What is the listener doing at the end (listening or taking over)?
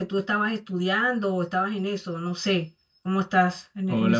taking over